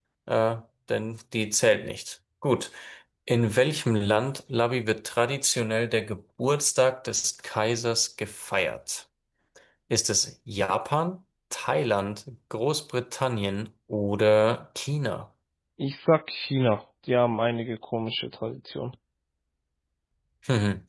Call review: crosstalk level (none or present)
none